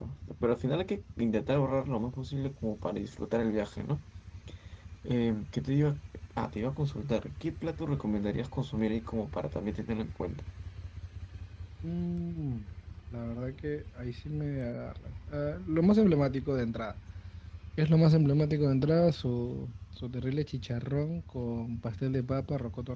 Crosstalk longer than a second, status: none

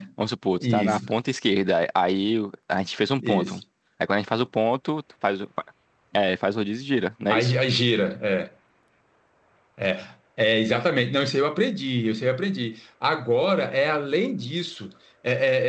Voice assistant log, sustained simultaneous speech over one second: none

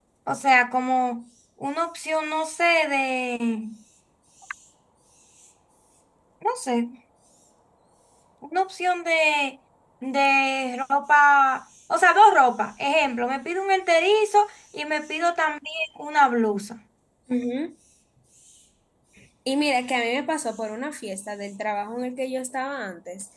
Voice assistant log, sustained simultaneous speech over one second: none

